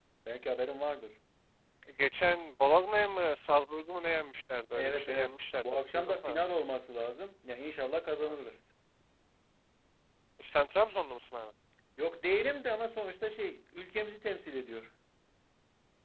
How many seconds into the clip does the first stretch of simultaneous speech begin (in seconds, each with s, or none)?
4.8 s